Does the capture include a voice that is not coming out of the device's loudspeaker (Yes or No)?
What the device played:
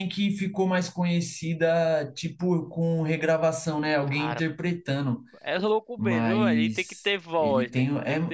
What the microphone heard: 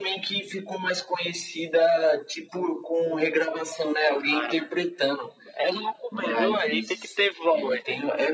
No